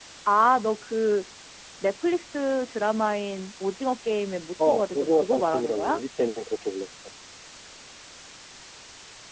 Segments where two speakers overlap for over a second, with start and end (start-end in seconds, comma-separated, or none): 4.6-6.0